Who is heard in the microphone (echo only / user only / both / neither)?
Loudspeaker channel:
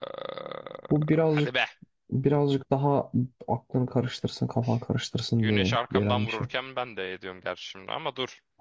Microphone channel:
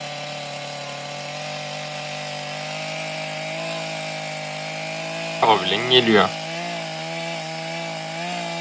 user only